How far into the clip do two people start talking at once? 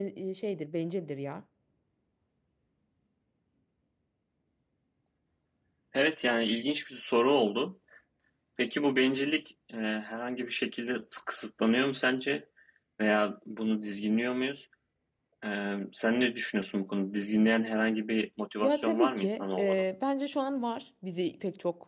19 s

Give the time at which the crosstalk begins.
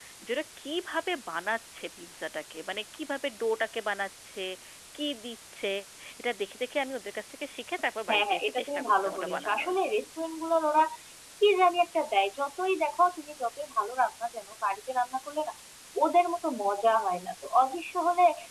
8 s

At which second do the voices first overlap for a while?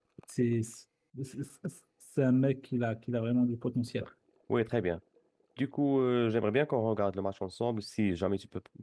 none

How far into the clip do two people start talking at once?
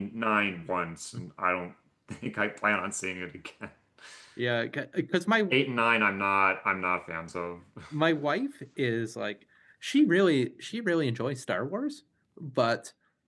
none

